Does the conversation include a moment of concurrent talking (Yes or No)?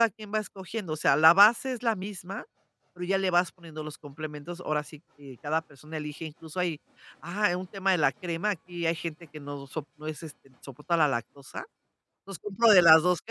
No